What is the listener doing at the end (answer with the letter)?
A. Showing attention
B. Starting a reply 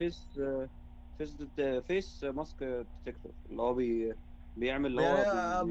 B